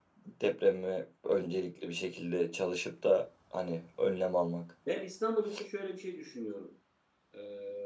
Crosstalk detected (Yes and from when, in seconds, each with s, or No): No